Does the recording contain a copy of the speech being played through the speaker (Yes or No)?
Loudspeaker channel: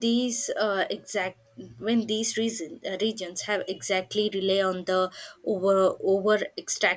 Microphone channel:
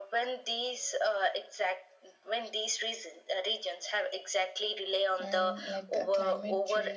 Yes